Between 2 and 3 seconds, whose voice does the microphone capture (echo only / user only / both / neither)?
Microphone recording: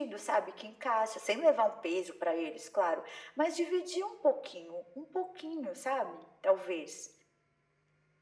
echo only